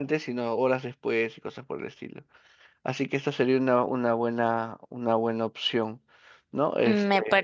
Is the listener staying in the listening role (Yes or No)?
No